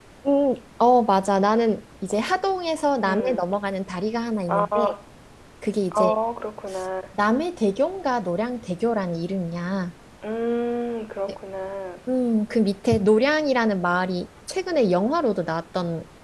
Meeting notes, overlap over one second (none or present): none